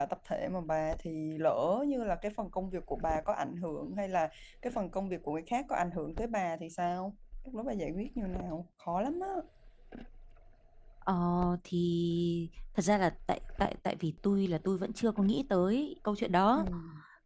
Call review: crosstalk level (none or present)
none